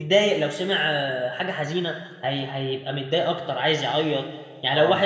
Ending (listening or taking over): listening